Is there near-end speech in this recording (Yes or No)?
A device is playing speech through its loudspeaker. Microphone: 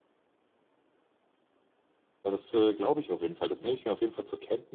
Yes